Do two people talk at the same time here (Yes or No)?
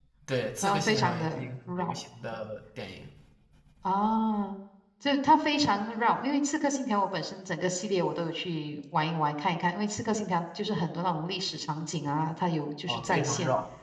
Yes